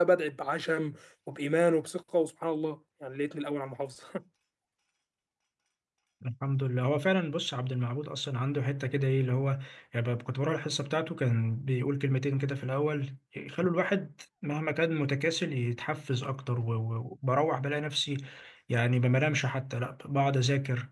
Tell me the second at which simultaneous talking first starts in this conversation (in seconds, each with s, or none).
none